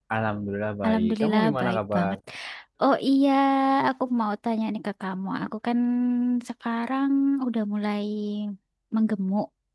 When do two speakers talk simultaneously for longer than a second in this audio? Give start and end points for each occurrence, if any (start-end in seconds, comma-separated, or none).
0.8-2.2